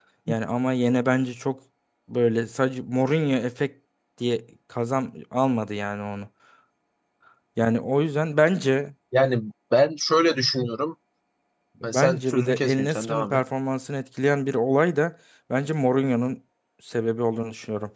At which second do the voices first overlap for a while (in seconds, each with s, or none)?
11.8 s